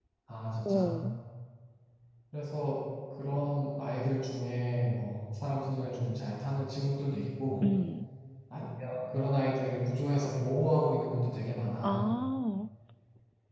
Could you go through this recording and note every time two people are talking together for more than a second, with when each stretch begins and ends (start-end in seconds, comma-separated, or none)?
none